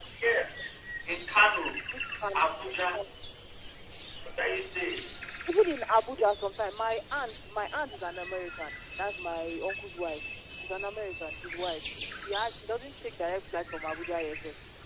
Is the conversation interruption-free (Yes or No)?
Yes